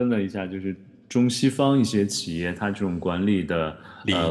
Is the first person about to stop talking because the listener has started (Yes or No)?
No